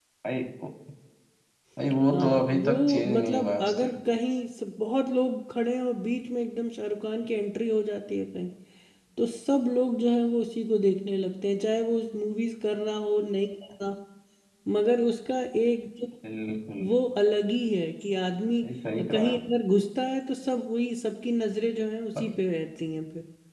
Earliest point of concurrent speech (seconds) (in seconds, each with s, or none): 2.1 s